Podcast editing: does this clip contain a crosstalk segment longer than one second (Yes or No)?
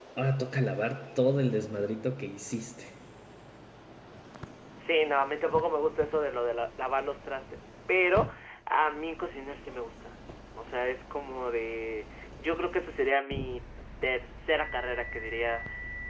No